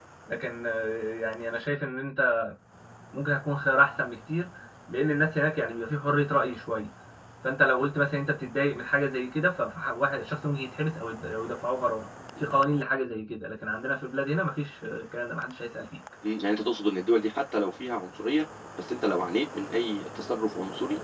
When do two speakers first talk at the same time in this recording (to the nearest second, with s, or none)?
none